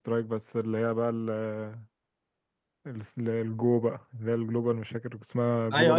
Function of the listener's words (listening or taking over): taking over